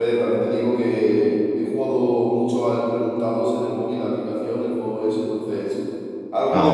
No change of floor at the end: No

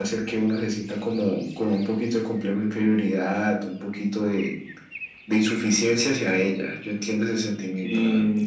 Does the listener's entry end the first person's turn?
Yes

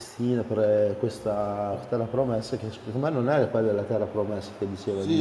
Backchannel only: No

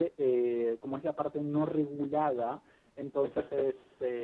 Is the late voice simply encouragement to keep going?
Yes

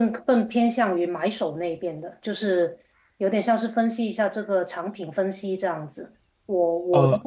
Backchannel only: Yes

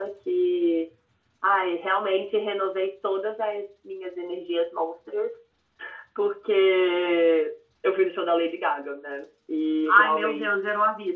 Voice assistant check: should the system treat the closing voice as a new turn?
Yes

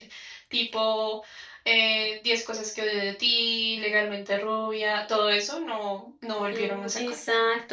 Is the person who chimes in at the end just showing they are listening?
No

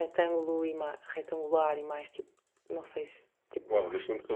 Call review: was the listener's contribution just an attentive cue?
No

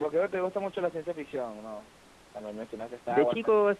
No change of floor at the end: No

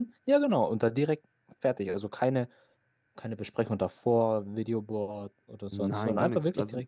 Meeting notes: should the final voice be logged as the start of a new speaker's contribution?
Yes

